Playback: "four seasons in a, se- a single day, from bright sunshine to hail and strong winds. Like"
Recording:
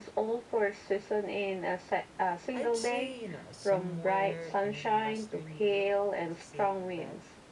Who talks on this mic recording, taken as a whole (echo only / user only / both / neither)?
both